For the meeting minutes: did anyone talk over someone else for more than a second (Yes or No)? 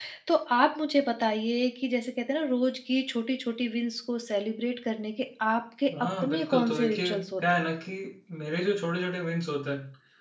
Yes